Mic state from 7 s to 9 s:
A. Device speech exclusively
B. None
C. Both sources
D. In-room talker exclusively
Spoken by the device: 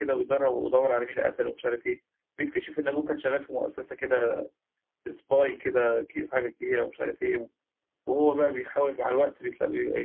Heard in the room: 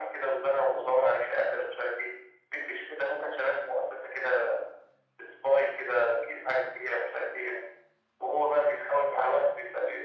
A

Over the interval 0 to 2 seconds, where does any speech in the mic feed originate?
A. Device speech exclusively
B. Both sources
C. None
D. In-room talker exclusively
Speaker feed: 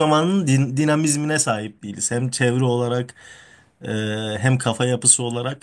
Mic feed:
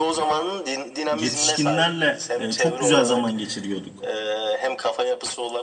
B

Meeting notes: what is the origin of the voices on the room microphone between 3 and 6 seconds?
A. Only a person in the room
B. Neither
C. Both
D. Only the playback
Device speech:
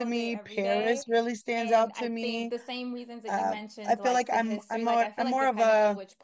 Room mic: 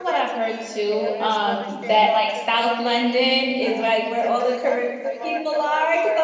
C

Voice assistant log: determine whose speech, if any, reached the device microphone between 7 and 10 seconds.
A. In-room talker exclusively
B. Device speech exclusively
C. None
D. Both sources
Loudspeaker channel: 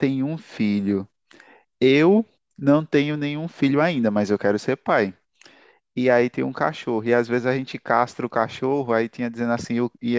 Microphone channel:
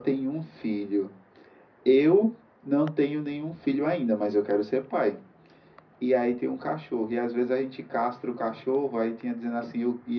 B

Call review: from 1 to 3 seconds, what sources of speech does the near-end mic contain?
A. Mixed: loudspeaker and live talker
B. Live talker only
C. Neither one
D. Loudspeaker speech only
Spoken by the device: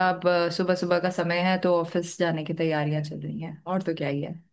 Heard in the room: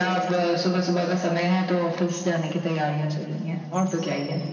D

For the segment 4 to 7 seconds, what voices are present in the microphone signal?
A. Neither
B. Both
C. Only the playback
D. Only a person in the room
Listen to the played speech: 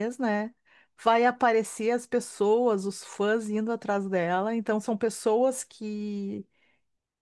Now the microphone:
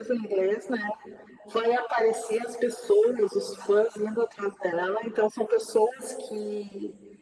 C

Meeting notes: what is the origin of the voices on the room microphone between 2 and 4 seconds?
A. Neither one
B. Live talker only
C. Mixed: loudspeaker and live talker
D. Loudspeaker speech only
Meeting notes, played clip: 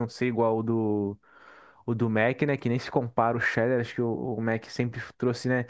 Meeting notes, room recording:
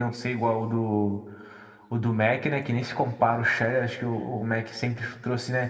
D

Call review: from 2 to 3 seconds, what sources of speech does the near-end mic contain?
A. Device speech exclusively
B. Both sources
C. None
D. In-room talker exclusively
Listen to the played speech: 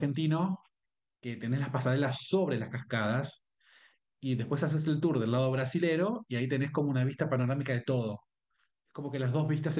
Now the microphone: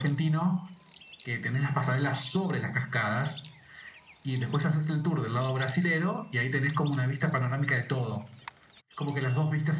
A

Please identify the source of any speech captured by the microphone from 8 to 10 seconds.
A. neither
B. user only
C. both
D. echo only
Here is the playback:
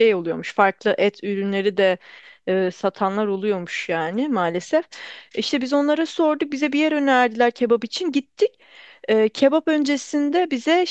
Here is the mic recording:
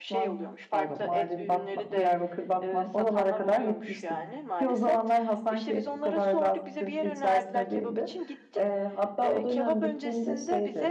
C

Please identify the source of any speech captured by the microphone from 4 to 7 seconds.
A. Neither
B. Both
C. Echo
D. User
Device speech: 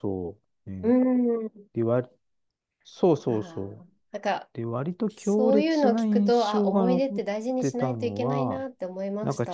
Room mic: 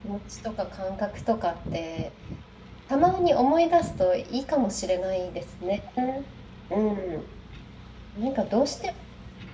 D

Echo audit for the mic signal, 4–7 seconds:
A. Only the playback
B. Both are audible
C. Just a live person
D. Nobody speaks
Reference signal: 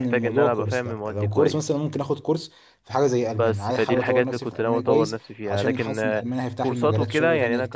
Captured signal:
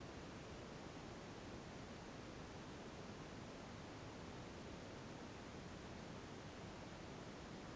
D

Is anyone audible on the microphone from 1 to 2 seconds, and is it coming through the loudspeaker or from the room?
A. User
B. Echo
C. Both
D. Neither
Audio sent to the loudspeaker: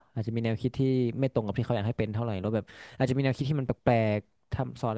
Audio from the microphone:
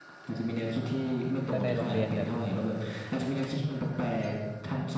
C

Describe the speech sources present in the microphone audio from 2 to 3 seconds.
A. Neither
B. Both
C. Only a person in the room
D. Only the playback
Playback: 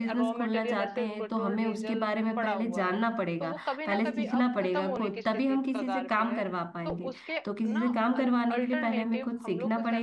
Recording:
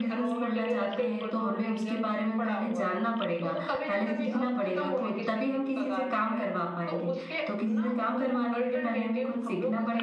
D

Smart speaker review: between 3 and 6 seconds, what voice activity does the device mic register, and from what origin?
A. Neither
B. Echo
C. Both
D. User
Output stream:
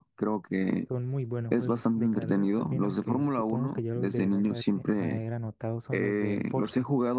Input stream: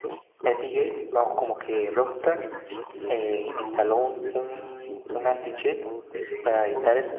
C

